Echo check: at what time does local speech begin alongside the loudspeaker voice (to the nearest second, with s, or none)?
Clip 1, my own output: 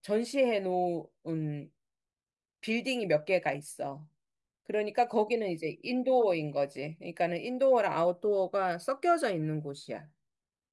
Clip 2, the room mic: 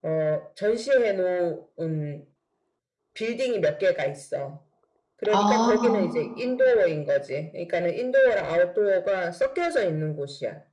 5 s